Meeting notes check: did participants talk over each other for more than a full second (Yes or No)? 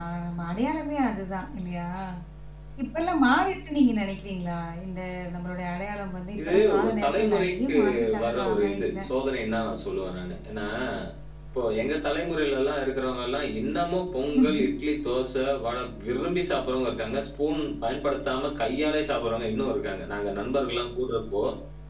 Yes